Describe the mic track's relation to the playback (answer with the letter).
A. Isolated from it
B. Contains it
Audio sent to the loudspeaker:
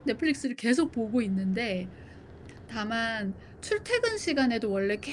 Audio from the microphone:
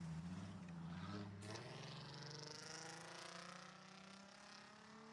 A